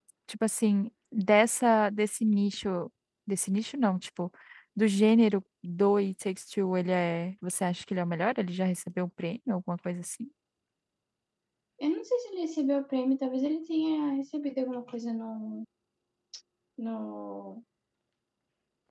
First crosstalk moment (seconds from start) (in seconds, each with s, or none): none